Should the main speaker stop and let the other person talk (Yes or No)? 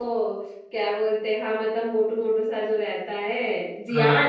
Yes